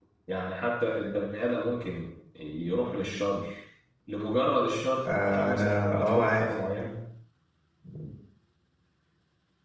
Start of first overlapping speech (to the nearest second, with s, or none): 5 s